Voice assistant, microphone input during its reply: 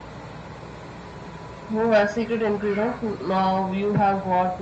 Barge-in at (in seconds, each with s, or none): none